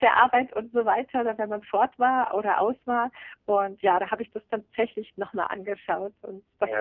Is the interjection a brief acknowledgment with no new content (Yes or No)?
No